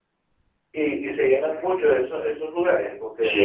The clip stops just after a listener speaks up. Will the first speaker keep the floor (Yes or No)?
No